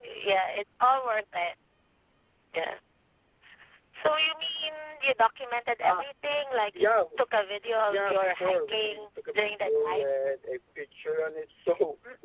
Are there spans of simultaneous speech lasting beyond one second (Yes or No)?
Yes